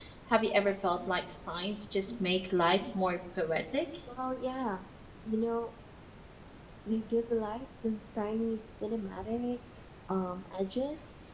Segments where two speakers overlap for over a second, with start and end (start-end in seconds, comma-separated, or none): none